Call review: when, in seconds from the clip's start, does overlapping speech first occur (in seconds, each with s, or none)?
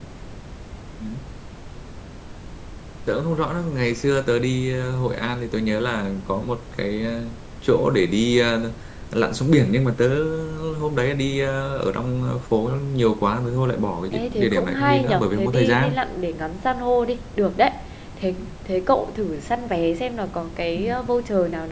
14.1 s